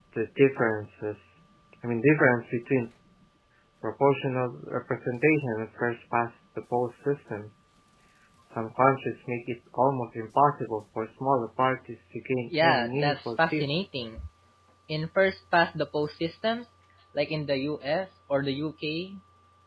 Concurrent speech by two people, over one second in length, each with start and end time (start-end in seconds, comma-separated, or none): 12.6-13.8